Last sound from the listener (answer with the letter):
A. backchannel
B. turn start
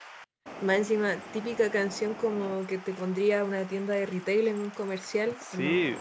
B